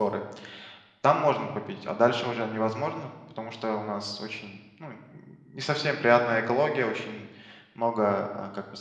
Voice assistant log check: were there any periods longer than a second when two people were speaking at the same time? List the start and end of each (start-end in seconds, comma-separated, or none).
none